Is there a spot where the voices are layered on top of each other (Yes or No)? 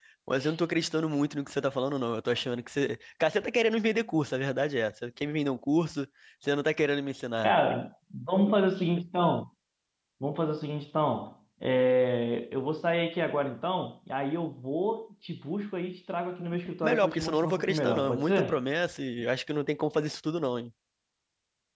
Yes